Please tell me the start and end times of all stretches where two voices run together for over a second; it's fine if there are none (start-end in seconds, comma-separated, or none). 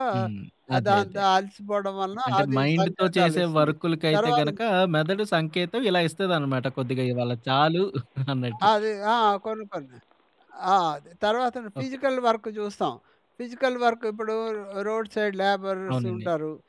2.3-3.7